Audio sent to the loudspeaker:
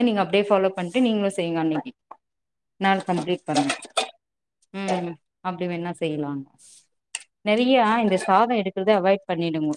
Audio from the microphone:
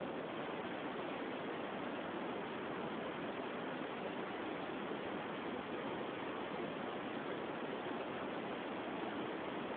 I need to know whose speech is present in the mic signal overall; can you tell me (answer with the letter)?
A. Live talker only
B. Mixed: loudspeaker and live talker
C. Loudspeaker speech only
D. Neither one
D